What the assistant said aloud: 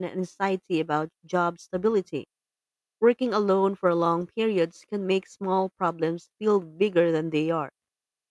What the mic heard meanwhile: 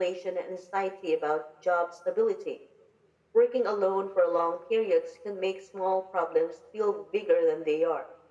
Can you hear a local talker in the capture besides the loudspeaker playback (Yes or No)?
No